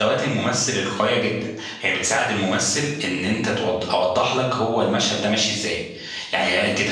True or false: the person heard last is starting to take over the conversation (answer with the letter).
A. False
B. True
A